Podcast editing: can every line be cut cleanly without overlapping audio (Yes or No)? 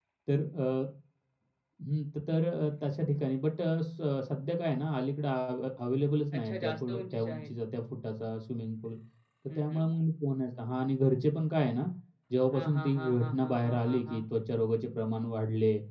No